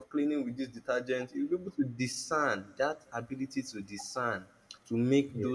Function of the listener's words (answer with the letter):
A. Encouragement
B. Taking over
A